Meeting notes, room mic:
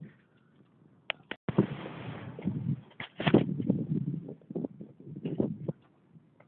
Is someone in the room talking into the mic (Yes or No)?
No